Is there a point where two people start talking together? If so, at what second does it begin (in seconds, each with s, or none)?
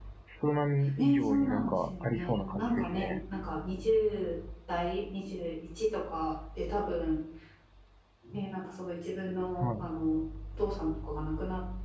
1.0 s